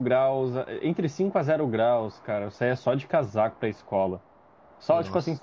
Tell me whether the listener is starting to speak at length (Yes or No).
No